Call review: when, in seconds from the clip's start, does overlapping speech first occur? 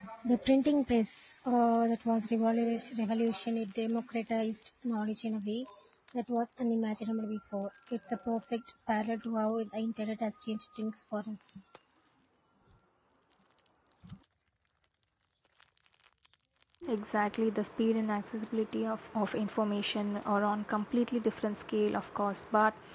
none

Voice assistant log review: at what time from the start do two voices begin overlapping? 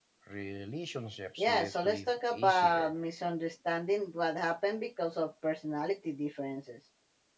1.4 s

